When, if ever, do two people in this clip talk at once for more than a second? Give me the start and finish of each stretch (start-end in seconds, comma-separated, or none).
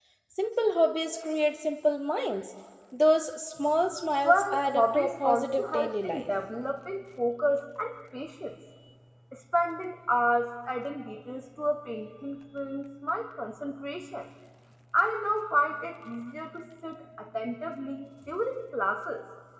4.2-6.3